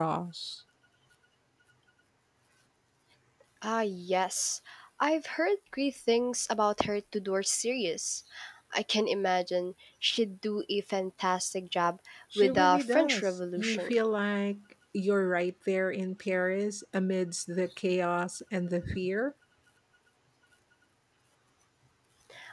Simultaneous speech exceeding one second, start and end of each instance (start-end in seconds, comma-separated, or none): 12.3-14.0